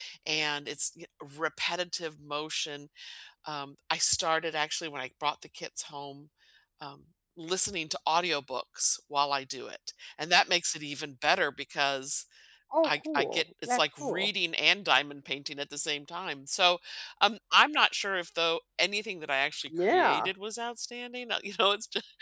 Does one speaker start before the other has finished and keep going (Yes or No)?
Yes